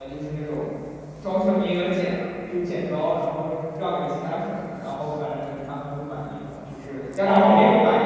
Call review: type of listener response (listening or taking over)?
taking over